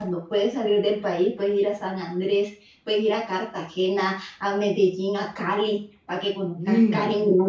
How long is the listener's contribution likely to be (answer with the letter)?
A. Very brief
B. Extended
A